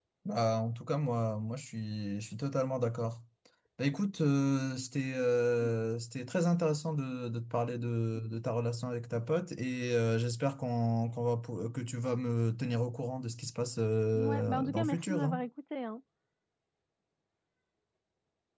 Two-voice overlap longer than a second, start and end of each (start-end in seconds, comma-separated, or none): 14.1-15.4